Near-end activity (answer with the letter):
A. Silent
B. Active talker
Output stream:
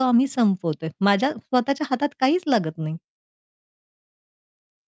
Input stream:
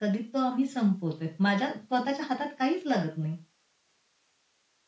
A